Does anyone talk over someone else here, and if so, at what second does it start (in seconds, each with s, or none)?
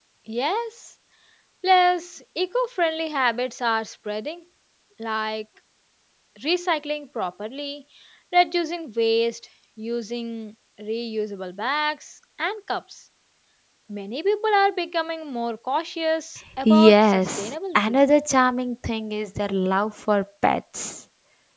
16.6 s